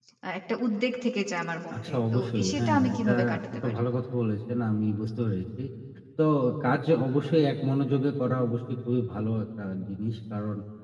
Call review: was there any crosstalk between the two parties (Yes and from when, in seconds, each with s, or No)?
Yes, from 1.7 s